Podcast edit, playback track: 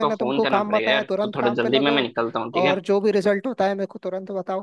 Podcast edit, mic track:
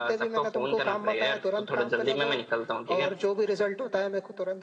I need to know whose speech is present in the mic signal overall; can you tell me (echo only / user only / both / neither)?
echo only